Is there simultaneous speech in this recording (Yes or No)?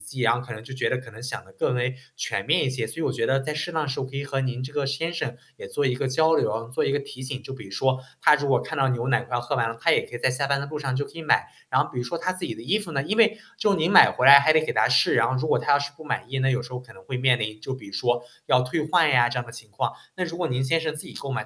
No